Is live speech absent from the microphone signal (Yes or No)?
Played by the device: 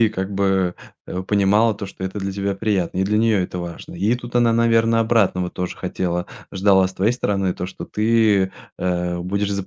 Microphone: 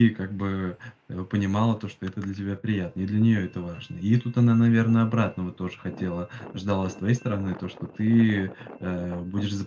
Yes